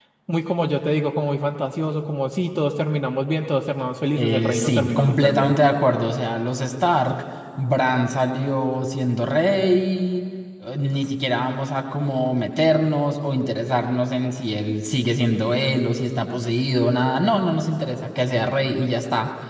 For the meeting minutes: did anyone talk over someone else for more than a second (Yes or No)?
Yes